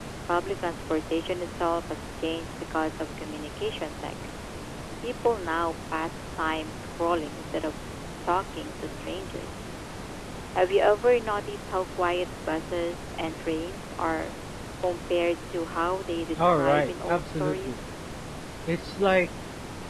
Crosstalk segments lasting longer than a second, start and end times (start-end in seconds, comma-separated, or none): 16.4-17.8